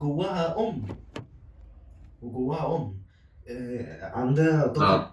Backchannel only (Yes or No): Yes